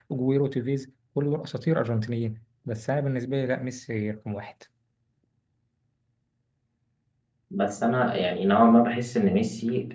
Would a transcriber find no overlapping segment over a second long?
Yes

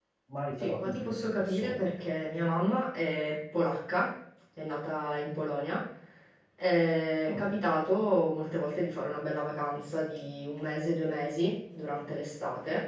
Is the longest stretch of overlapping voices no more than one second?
No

